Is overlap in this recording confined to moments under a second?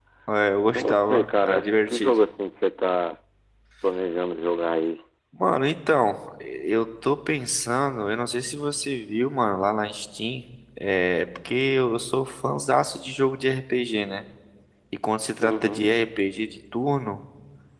No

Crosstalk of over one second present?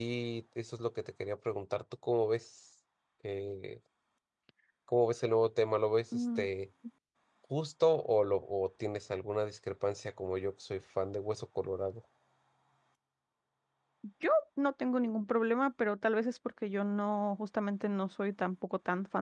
No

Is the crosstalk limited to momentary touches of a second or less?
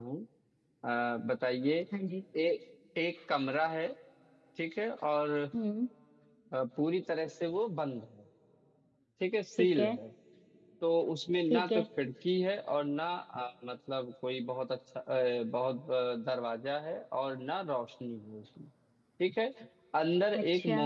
Yes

